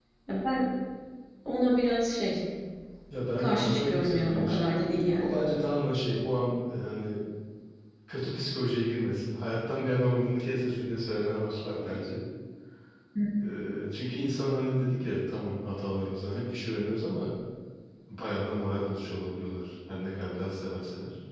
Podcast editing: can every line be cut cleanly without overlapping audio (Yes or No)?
No